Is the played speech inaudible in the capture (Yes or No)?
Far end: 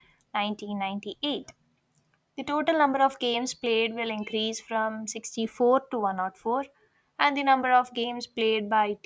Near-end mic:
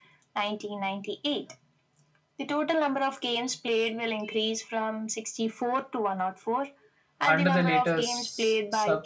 No